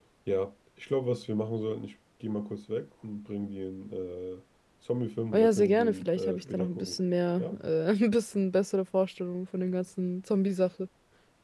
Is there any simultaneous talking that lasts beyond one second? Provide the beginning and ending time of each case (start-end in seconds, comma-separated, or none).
5.3-7.0